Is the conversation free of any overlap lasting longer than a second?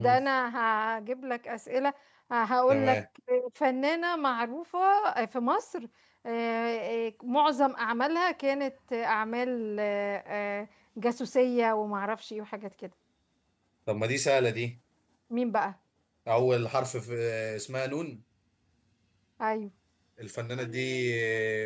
Yes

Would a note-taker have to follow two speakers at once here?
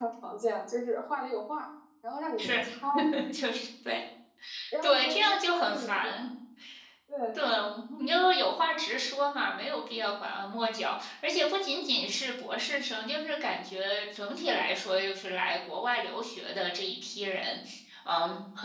Yes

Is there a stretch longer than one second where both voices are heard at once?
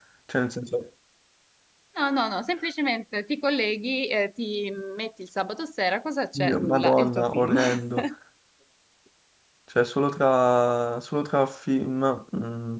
Yes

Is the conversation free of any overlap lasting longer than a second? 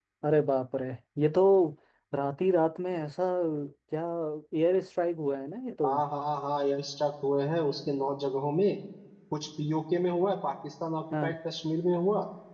Yes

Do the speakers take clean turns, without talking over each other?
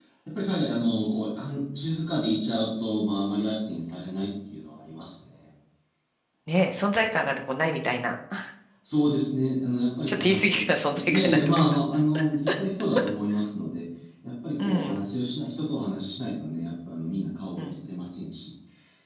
No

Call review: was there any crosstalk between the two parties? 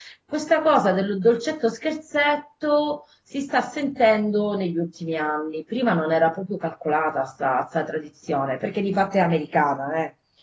No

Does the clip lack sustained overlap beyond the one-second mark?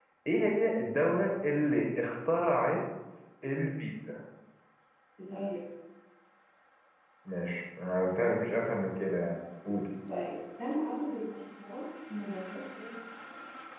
Yes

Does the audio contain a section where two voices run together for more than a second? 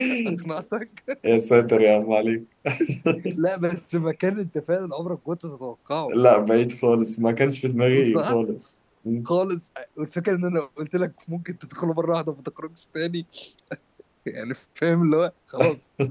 No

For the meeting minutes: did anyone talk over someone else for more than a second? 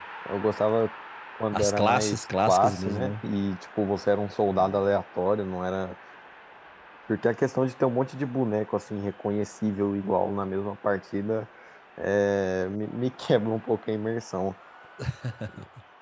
Yes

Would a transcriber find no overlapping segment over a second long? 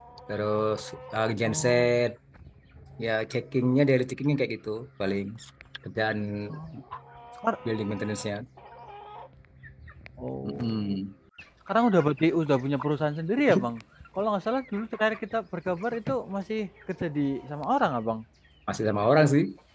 Yes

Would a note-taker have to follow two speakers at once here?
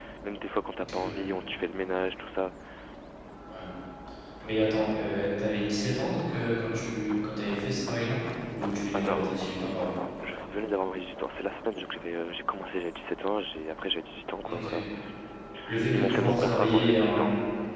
Yes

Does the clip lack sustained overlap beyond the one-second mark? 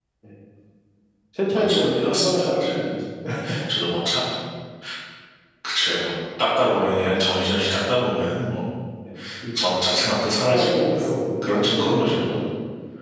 No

